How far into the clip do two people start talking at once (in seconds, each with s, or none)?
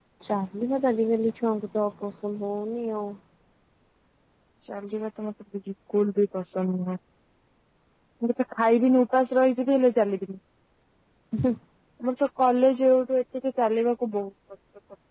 none